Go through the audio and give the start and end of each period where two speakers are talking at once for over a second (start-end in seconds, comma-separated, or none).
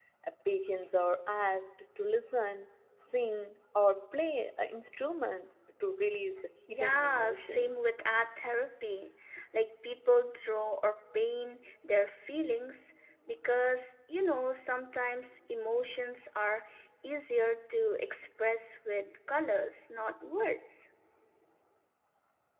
6.7-7.9